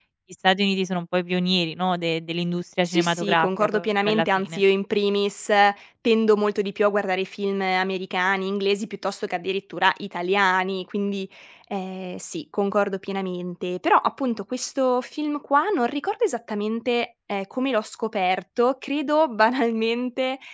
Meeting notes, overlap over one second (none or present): present